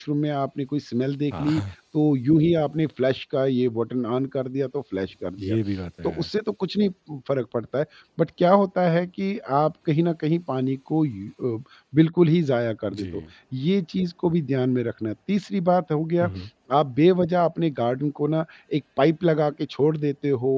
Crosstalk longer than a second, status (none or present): none